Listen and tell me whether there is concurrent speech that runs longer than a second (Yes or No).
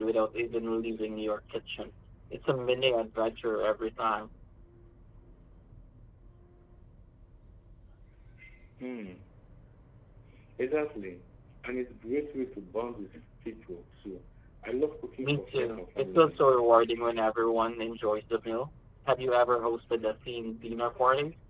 Yes